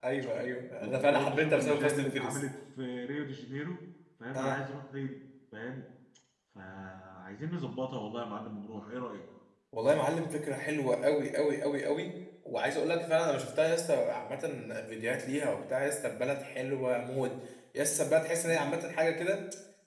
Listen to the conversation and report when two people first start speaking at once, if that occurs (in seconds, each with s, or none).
0.8 s